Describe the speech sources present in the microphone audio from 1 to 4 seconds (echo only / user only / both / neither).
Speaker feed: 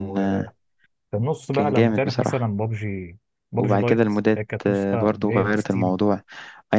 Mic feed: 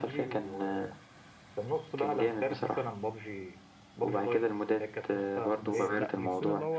echo only